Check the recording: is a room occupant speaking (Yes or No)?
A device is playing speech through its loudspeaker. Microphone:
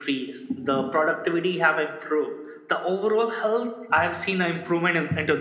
No